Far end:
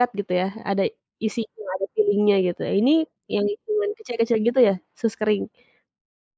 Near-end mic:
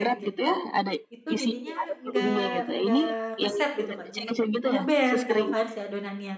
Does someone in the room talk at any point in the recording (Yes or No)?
Yes